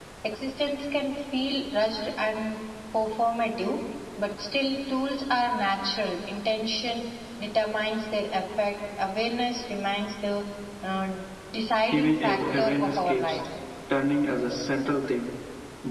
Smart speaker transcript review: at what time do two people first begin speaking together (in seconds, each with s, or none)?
11.9 s